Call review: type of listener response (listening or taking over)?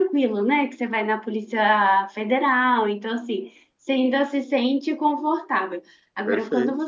listening